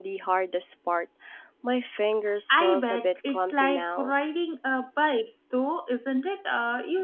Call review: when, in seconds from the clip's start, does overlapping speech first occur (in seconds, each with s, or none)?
2.5 s